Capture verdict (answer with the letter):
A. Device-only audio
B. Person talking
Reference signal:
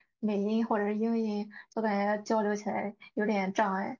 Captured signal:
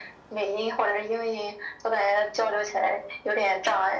A